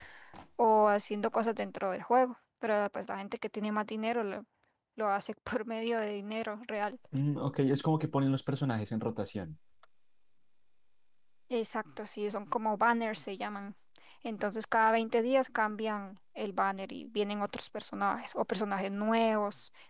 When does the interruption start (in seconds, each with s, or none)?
none